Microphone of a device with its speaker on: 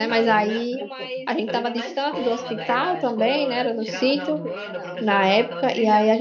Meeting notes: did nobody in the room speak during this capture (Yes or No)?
No